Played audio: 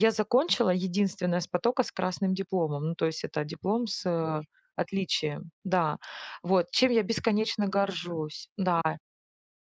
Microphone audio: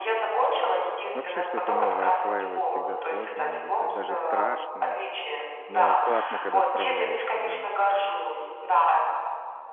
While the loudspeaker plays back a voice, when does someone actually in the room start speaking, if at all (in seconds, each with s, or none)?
1.1 s